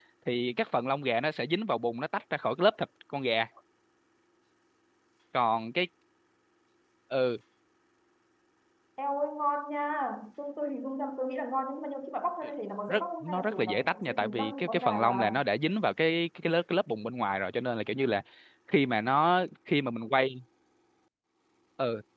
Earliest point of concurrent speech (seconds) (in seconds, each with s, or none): 12.9 s